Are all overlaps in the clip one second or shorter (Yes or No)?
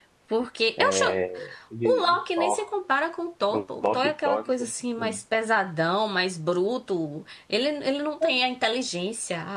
No